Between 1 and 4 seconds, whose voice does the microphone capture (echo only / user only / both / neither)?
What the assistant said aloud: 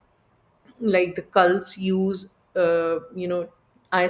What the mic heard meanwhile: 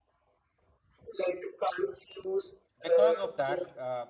both